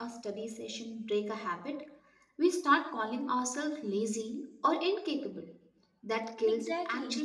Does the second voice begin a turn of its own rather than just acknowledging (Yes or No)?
No